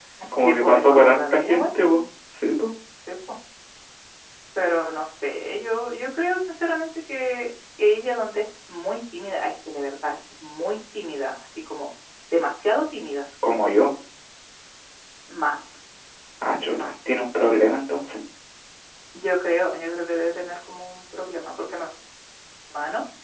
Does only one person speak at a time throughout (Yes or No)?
No